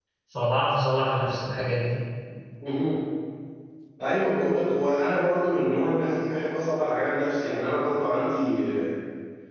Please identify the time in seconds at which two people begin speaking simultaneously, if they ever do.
none

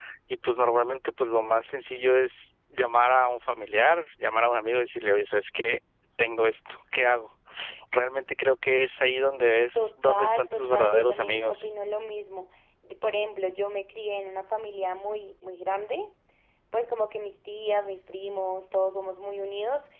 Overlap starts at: 10 s

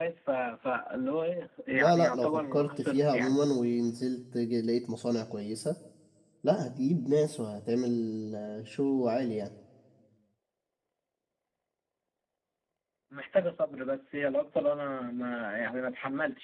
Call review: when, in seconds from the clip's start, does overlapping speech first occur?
2 s

